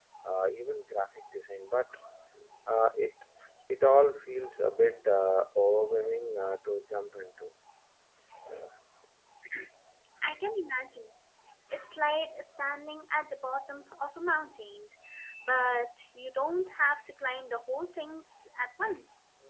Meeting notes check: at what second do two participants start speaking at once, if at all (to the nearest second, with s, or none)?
none